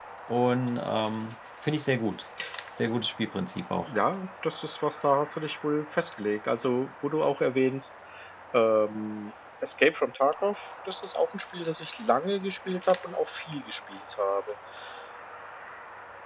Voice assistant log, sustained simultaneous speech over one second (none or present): none